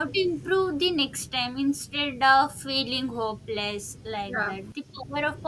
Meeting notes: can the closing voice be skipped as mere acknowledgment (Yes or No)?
Yes